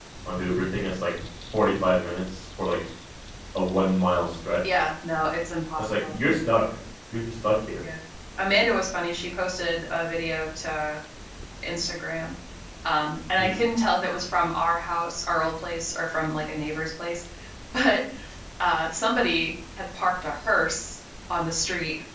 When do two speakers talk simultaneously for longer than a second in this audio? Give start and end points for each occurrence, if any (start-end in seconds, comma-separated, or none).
none